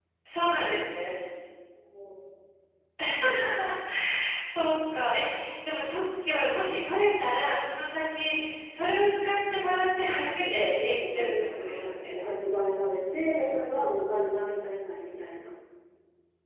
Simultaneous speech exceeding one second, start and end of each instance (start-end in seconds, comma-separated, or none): 10.3-12.1